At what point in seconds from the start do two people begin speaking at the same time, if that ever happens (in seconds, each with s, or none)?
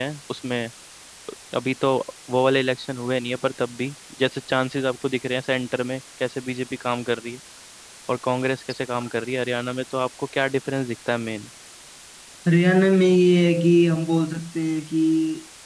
none